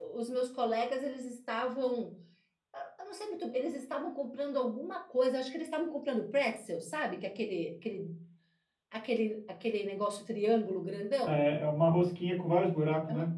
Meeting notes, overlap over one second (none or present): none